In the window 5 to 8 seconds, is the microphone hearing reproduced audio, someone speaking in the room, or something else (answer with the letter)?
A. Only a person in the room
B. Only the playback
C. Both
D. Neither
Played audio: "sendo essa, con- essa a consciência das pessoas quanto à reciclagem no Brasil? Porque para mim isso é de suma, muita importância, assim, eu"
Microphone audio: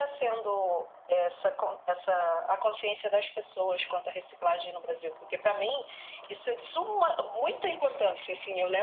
B